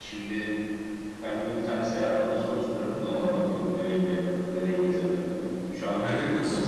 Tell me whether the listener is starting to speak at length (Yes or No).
No